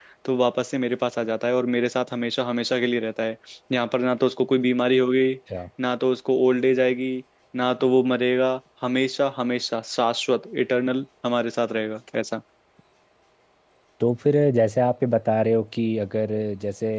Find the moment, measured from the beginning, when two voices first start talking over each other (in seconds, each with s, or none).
none